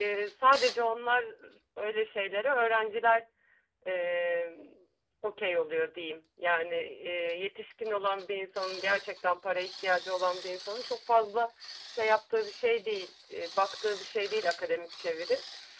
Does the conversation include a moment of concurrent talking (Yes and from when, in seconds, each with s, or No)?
No